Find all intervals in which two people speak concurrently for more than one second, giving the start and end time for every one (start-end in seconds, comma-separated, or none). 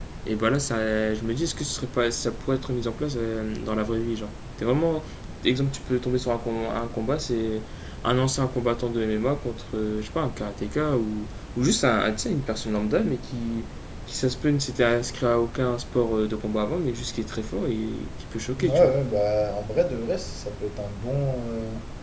none